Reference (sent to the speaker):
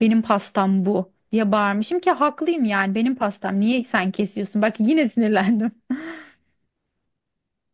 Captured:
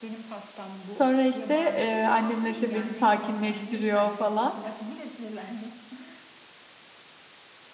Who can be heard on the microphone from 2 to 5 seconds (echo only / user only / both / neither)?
both